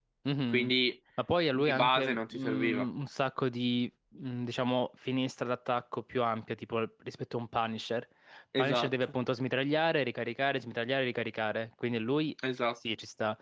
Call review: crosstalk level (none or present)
present